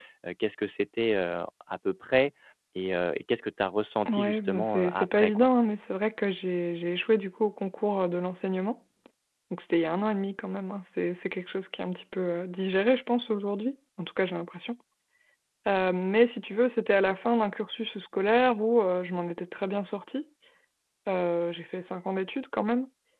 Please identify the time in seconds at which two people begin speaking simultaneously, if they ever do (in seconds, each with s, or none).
4.1 s